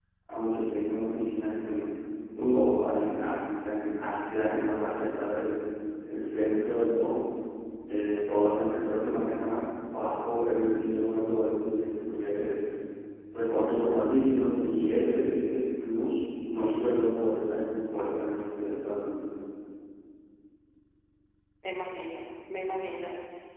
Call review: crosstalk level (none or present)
none